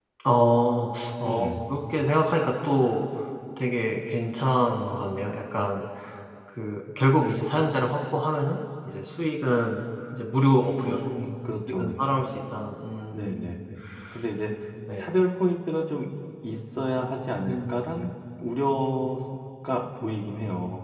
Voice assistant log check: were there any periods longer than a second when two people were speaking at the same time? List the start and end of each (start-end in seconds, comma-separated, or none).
none